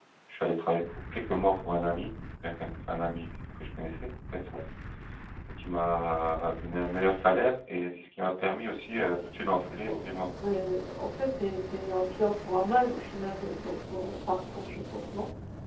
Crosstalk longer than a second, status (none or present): none